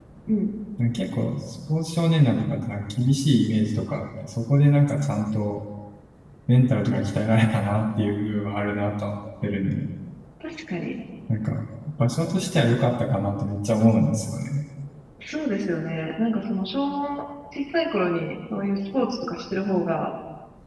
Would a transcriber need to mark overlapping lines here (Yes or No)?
No